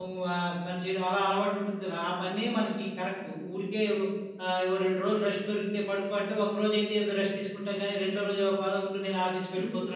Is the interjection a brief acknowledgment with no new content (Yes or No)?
No